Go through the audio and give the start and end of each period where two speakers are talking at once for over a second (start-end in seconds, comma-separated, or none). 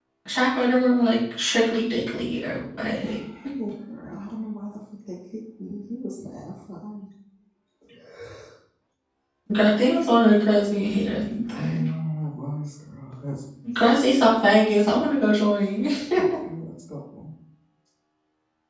none